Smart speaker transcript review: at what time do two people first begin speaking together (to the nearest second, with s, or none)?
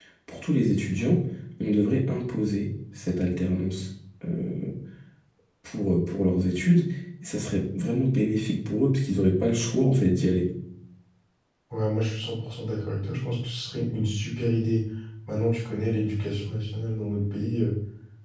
none